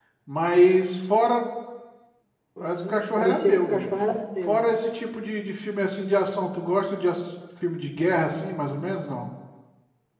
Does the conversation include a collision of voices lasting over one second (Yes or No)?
Yes